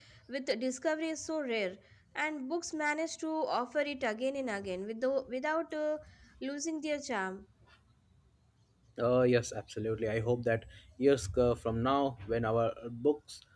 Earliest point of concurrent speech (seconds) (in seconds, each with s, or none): none